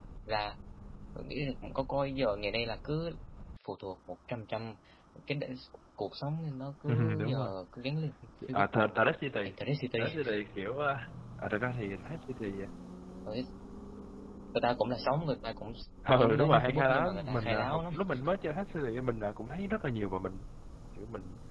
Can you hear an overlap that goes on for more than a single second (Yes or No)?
Yes